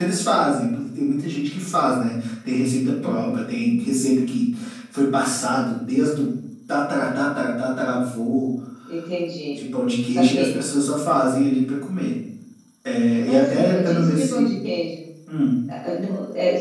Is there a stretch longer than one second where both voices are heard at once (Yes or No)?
Yes